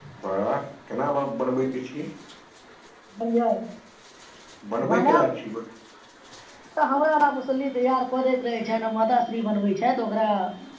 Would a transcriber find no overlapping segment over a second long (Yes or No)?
Yes